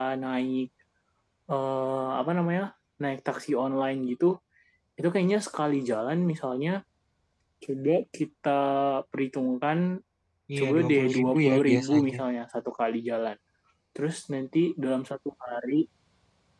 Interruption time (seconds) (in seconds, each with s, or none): 10.6 s